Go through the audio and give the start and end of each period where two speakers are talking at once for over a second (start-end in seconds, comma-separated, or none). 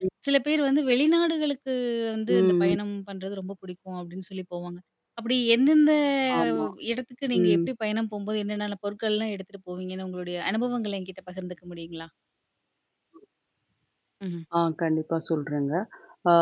none